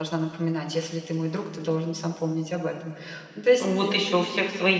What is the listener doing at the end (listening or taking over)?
taking over